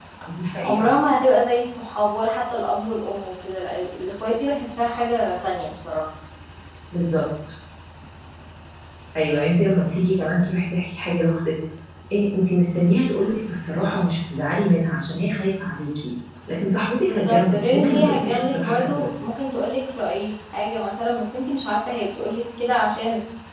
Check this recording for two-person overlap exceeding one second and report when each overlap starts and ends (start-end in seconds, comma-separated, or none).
17.0-19.1